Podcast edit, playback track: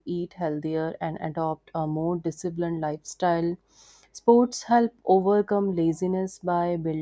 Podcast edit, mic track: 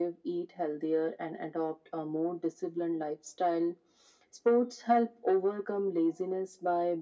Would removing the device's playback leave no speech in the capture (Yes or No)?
Yes